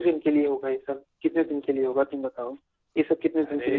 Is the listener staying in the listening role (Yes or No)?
Yes